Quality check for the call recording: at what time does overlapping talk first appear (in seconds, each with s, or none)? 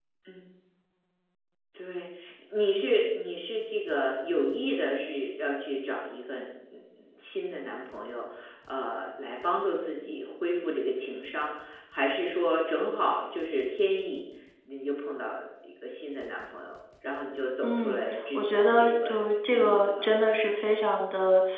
17.6 s